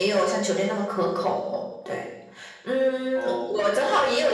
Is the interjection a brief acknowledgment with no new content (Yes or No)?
Yes